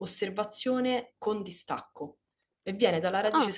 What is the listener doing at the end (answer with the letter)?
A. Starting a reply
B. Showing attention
B